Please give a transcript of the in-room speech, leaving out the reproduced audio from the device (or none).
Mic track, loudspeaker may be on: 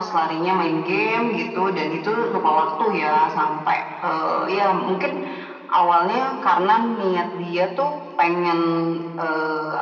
none